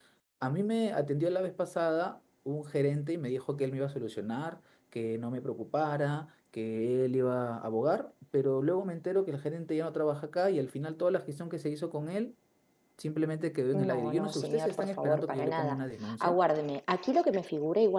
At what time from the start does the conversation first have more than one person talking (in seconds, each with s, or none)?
13.7 s